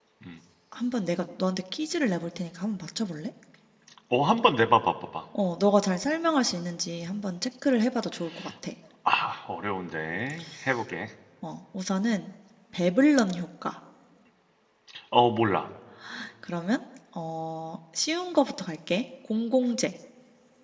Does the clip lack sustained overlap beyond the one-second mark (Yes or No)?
Yes